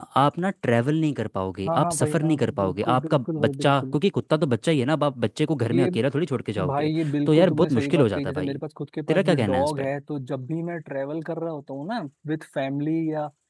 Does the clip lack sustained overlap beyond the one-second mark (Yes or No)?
No